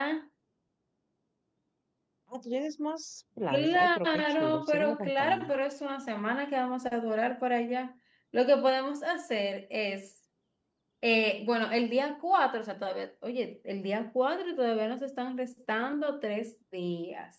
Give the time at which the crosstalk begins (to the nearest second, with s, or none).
3 s